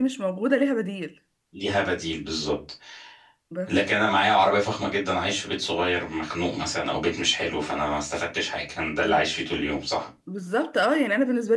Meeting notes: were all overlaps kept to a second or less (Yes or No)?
Yes